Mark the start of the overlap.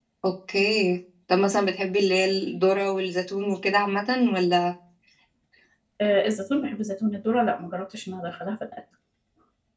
none

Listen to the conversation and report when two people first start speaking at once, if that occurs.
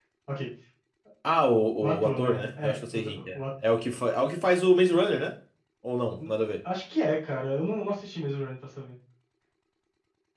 1.8 s

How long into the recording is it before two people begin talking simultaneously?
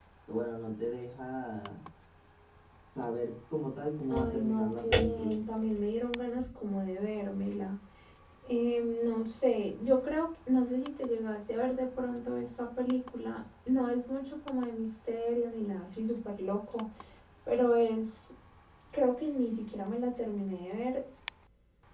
4.1 s

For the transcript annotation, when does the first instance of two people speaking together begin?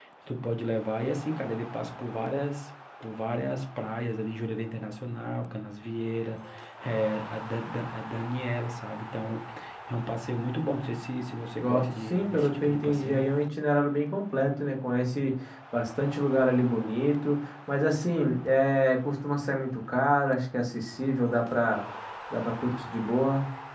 11.6 s

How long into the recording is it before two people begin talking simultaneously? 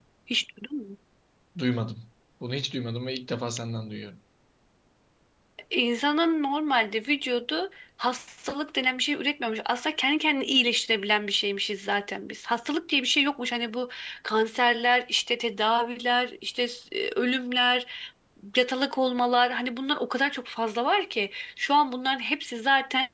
none

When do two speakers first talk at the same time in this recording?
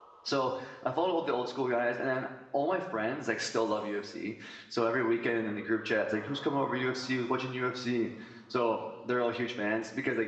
none

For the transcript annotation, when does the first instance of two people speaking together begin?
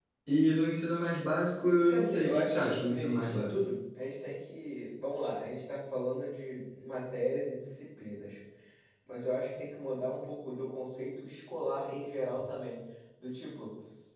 1.9 s

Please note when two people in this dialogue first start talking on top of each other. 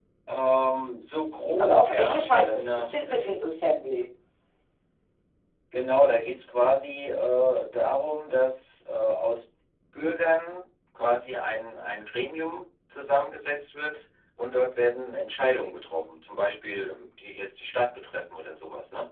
1.6 s

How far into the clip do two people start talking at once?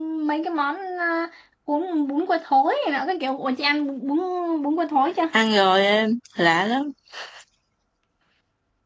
none

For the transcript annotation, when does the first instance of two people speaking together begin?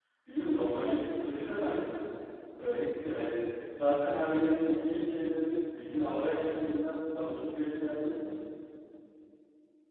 none

